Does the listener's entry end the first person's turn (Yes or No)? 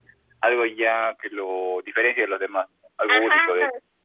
Yes